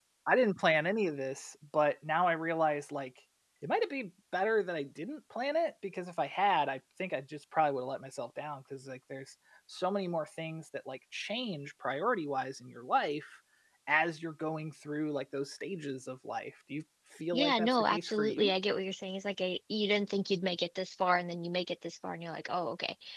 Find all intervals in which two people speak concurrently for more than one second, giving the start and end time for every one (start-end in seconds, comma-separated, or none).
17.3-18.5